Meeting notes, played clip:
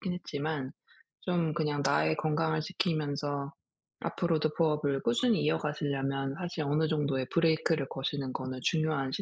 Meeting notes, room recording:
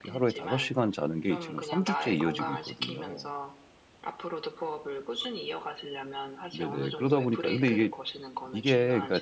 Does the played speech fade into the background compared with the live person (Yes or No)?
Yes